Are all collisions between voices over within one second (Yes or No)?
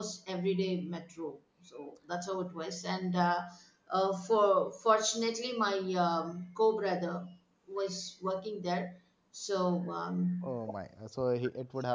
Yes